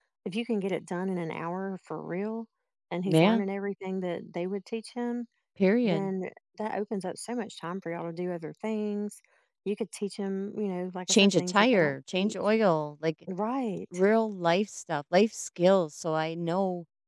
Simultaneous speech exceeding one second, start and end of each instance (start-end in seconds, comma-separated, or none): 11.1-12.3